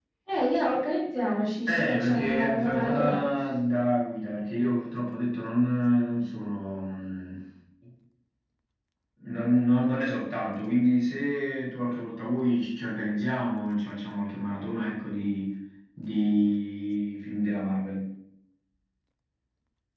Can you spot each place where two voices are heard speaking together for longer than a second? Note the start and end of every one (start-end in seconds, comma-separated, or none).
1.7-3.2